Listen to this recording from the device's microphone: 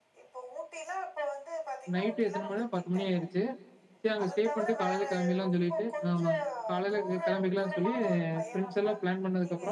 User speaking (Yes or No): Yes